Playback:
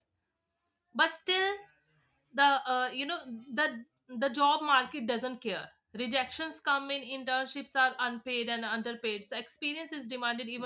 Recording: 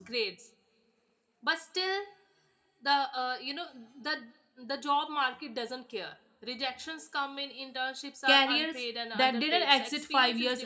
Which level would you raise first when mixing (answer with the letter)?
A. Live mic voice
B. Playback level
B